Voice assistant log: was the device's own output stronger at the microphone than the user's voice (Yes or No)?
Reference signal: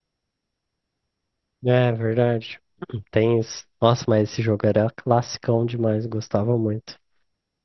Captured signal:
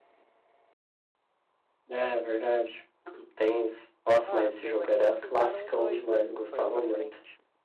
Yes